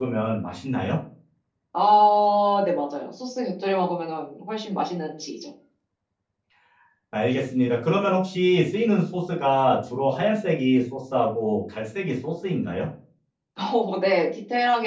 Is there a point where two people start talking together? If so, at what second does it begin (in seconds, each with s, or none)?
none